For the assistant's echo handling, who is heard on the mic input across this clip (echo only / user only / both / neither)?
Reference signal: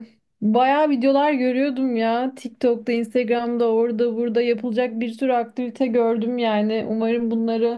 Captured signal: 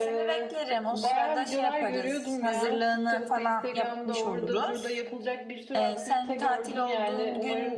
both